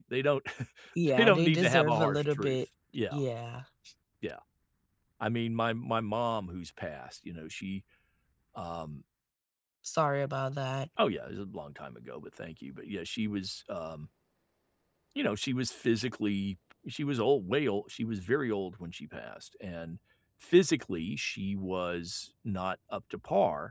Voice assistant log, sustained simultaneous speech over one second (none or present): present